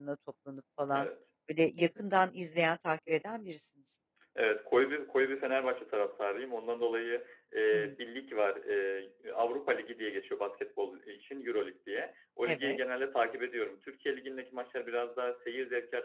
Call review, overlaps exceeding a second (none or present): none